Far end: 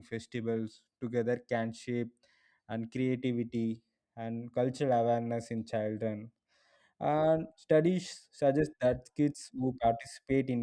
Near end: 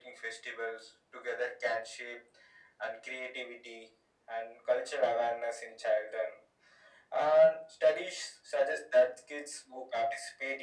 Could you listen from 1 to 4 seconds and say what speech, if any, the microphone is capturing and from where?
echo only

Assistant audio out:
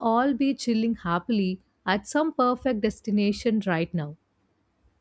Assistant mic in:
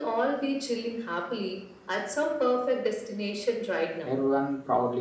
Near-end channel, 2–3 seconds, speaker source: echo only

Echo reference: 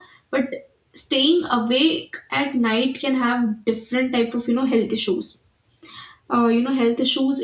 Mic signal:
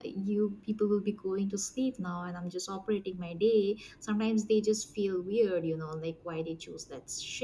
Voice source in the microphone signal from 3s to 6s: user only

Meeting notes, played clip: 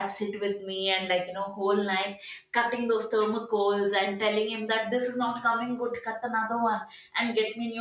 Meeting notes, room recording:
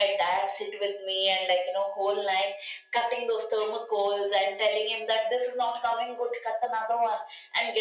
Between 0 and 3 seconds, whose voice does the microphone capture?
echo only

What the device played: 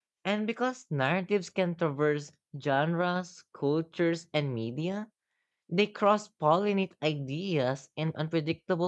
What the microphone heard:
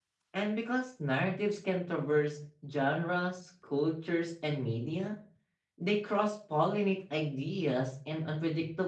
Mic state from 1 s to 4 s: echo only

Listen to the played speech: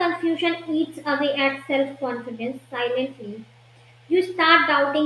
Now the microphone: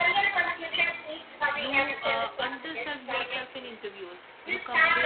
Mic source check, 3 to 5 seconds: both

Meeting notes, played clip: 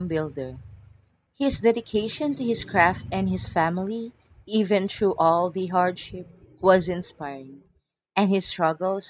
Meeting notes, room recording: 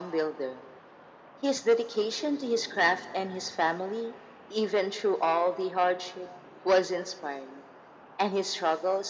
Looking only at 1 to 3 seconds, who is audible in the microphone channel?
echo only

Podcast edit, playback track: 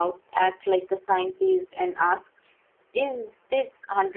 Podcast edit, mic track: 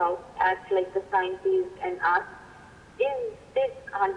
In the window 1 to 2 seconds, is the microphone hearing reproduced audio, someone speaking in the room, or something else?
echo only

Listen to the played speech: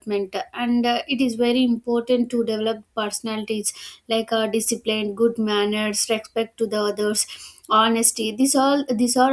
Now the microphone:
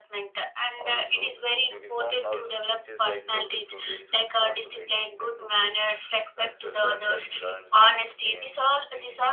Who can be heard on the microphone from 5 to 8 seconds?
both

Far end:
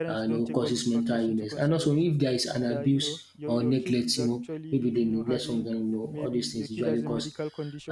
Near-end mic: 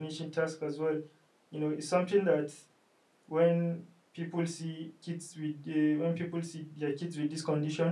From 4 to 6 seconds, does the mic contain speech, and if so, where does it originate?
user only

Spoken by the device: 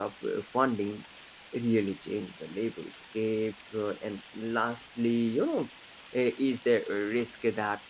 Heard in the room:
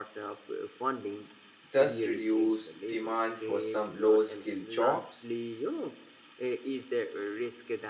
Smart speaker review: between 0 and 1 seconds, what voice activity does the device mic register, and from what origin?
echo only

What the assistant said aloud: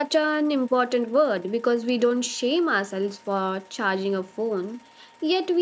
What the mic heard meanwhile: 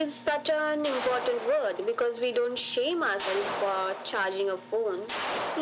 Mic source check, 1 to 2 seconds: echo only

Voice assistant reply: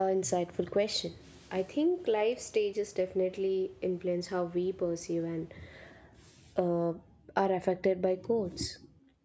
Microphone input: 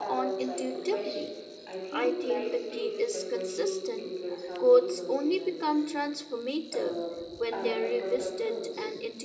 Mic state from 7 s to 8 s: both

